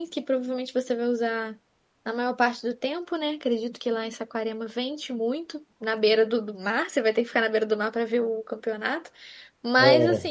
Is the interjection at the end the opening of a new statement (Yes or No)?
No